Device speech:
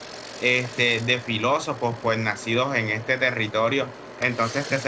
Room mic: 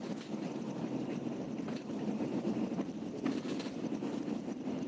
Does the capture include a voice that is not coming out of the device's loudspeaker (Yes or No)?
No